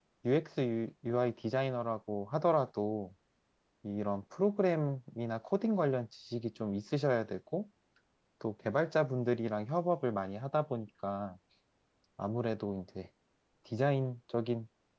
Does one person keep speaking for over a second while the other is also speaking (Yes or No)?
No